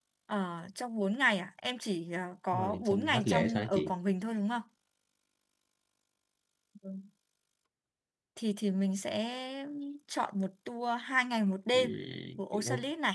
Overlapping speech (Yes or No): Yes